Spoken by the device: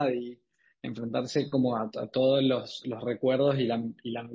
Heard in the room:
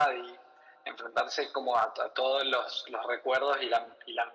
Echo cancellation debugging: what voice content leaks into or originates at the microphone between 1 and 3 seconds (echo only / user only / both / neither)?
echo only